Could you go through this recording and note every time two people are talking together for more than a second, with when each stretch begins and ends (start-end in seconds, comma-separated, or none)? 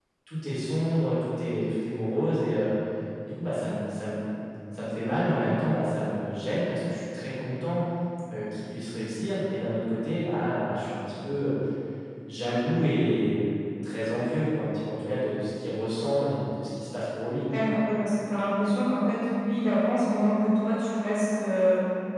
none